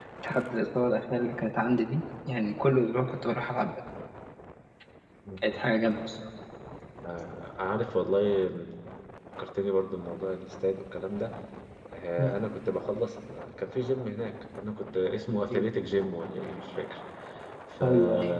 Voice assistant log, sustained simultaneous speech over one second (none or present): none